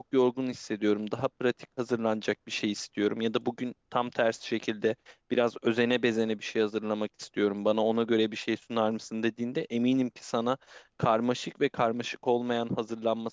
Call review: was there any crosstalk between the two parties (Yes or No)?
No